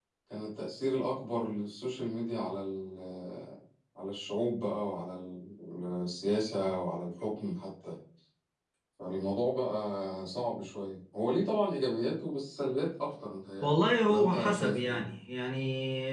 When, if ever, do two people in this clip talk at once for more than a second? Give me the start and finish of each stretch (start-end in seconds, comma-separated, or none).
13.6-15.0